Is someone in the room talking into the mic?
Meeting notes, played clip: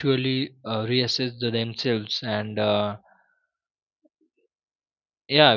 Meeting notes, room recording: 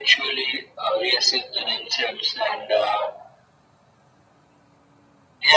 No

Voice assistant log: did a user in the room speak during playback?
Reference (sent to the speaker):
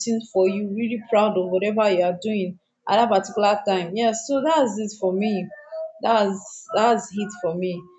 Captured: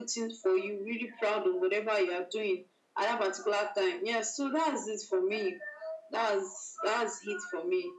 No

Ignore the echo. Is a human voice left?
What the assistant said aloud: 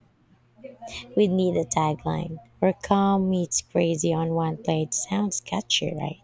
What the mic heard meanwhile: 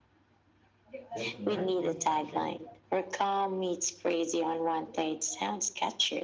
Yes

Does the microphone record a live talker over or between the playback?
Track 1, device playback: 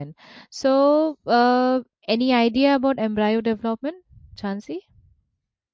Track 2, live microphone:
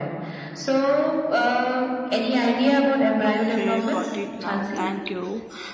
Yes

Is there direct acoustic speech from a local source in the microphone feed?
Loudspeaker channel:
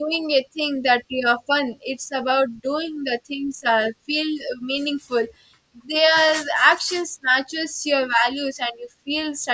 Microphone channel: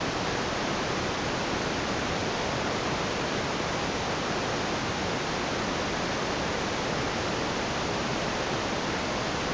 No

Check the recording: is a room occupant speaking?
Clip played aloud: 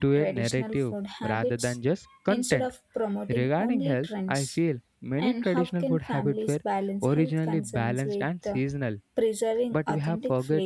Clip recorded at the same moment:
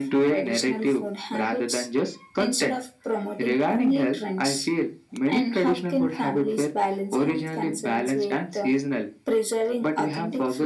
No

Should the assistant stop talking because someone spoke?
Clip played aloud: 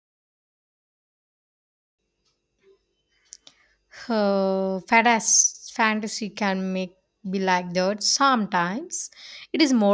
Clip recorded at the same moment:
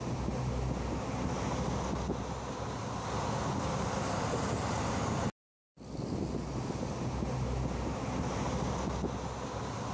No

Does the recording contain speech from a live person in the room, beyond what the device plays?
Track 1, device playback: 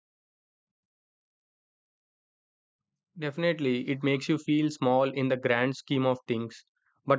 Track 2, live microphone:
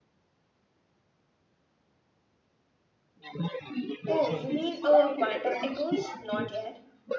Yes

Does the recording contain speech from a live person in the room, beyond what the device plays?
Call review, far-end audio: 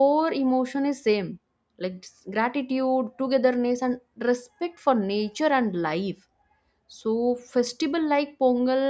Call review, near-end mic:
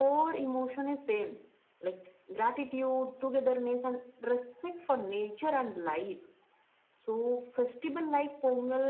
No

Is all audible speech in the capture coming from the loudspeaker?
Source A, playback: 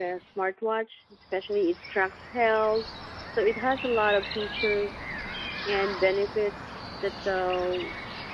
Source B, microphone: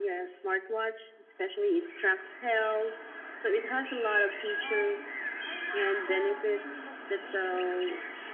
No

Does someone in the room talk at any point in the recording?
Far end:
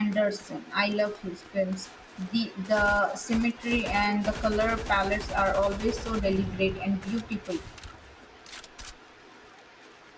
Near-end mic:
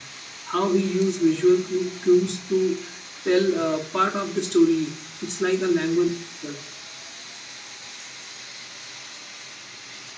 Yes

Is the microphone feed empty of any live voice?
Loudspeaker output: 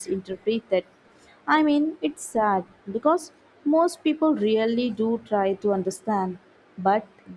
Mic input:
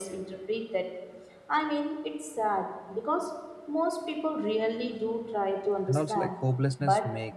No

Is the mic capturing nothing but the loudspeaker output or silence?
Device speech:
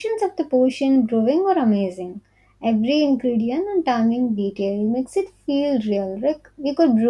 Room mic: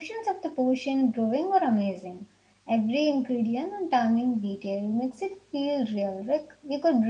Yes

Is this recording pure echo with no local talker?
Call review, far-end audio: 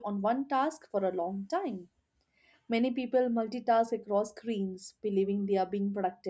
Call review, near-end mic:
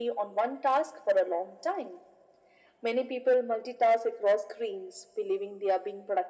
Yes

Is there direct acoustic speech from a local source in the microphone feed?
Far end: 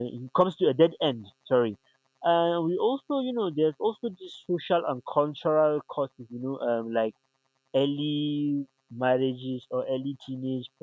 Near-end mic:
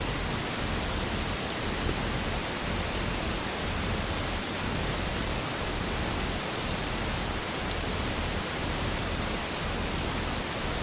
No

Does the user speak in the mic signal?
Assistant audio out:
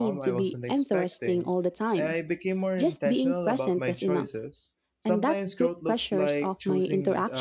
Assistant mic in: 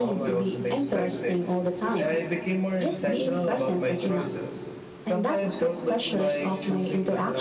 No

